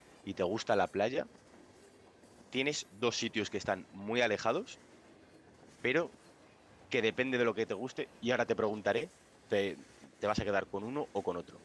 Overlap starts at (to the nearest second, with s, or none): none